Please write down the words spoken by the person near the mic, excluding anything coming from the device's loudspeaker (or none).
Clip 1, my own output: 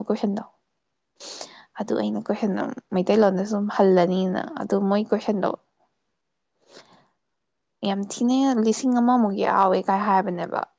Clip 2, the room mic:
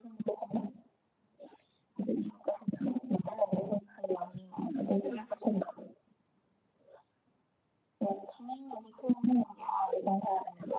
ꯏꯃꯥꯏ ꯄꯦꯃꯥ